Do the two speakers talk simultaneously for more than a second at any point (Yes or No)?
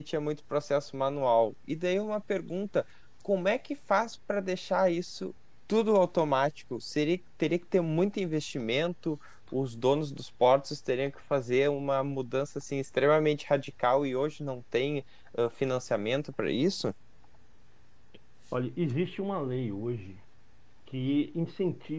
No